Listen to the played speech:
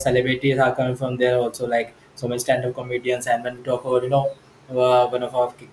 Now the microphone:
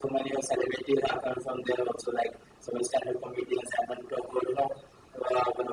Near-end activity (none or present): none